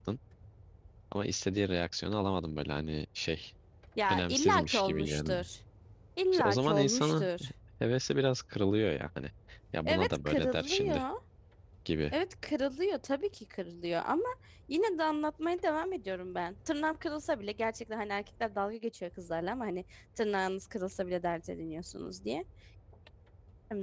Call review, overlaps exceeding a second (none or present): present